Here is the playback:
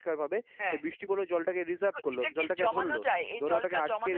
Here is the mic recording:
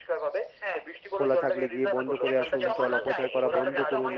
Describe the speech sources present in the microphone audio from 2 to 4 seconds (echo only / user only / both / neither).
both